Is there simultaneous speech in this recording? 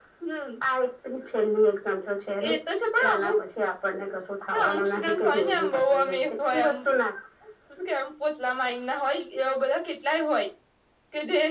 Yes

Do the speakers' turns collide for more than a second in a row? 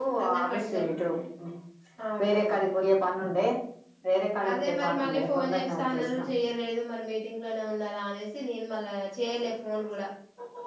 Yes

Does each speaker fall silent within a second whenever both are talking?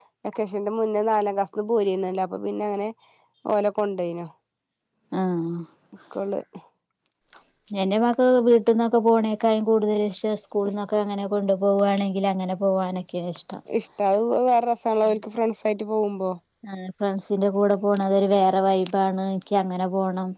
Yes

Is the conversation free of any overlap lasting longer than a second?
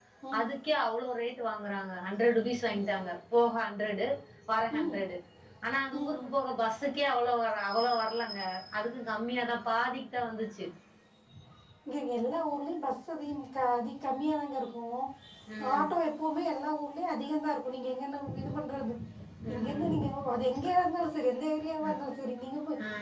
Yes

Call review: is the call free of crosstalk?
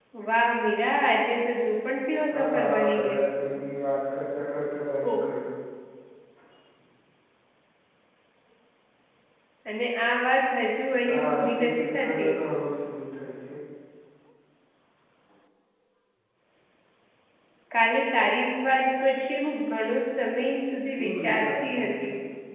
No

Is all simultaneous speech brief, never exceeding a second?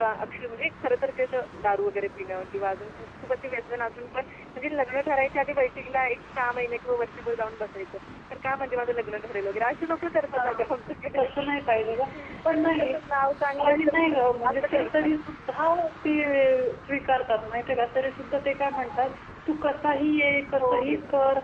No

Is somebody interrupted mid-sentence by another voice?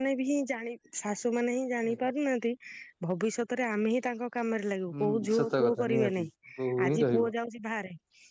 Yes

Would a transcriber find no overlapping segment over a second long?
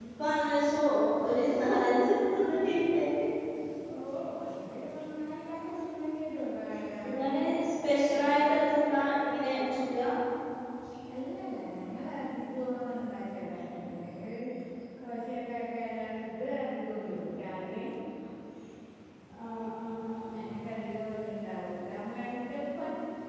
Yes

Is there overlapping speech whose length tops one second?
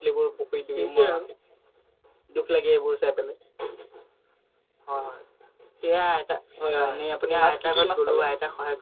Yes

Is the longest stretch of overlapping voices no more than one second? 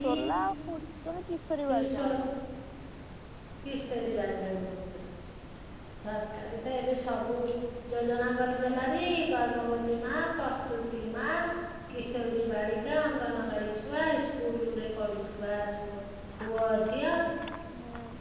Yes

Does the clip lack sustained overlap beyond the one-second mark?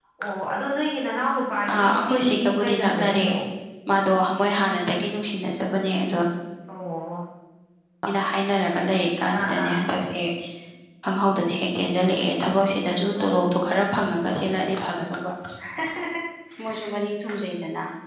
No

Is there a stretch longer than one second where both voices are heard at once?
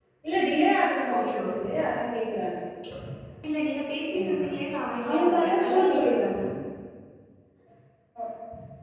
Yes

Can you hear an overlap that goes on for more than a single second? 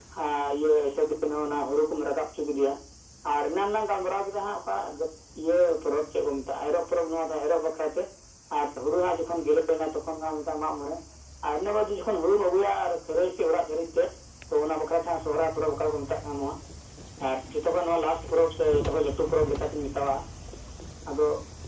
No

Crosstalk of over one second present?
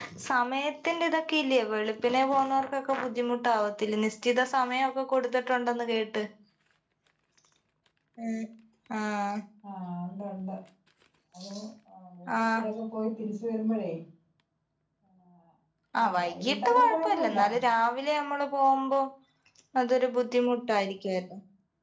Yes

